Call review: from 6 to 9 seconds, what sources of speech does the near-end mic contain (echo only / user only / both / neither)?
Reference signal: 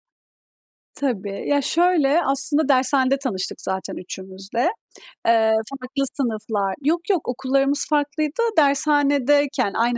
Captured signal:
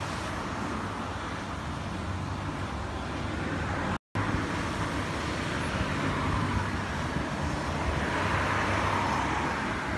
neither